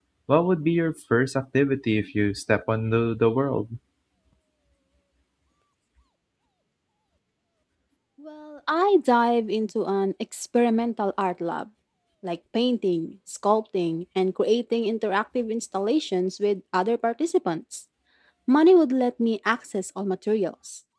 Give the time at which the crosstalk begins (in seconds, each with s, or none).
none